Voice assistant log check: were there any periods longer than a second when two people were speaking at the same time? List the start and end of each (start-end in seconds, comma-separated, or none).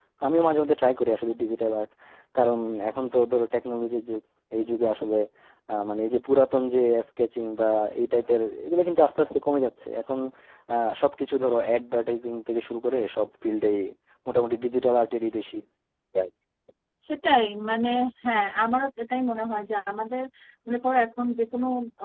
none